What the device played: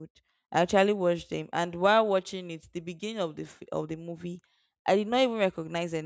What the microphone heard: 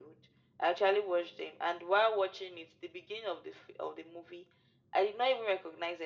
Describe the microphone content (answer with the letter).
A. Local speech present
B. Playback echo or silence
B